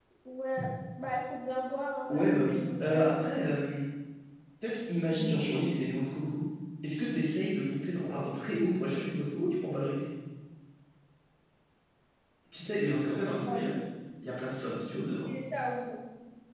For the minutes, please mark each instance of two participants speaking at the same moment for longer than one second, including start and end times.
2.1-3.3

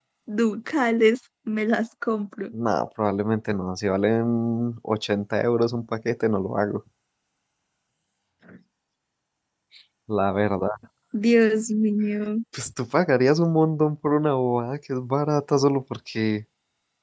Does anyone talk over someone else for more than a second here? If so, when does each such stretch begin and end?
none

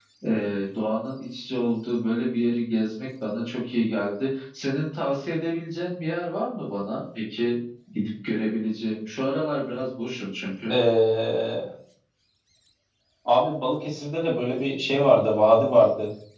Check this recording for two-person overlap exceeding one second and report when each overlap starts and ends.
none

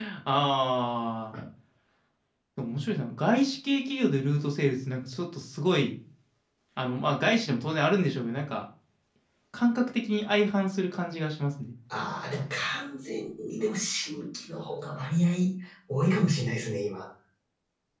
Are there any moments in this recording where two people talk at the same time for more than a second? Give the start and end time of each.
none

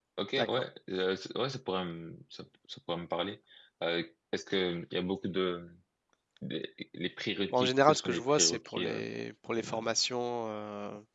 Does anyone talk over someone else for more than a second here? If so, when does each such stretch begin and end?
7.5-9.0

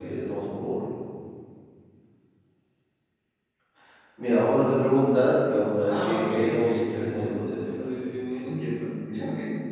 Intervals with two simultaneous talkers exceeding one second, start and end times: 5.9-7.8

